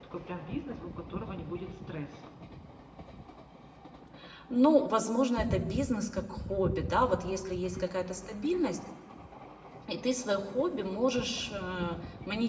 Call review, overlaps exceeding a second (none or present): none